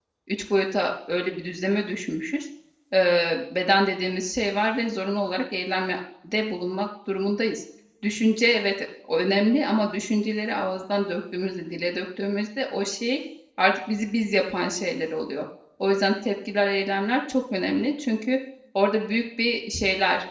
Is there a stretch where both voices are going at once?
No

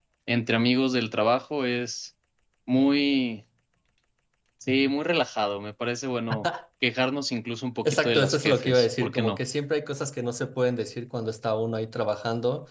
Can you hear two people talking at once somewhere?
Yes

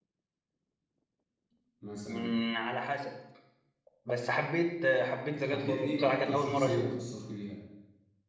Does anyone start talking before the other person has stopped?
Yes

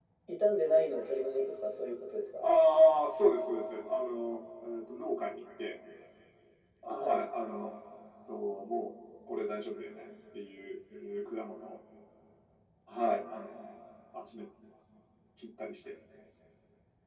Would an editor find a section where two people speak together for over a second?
No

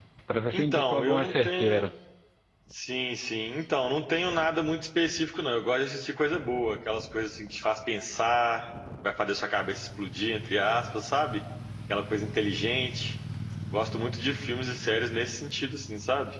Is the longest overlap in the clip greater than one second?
Yes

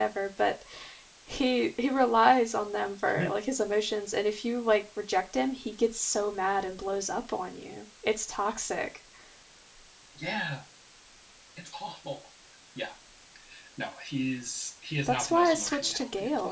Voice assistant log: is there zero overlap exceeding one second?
No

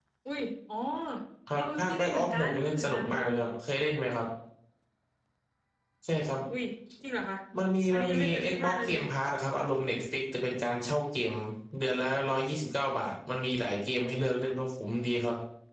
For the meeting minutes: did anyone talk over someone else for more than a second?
Yes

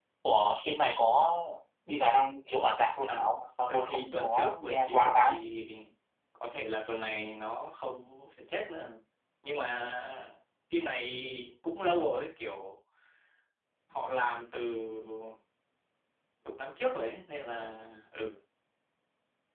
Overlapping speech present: Yes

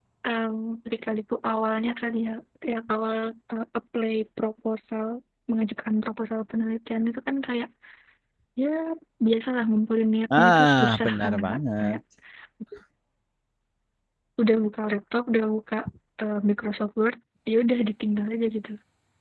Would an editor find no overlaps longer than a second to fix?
No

